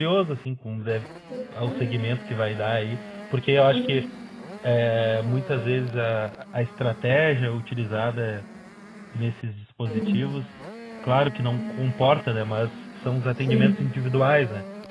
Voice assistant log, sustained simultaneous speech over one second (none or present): none